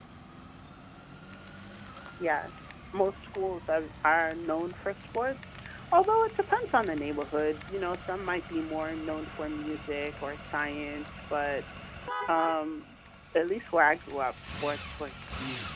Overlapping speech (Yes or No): No